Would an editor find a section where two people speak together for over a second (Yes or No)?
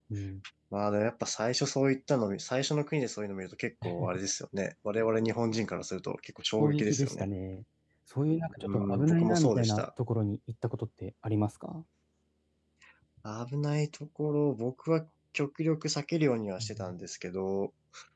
Yes